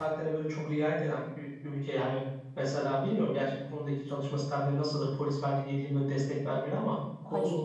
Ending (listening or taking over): listening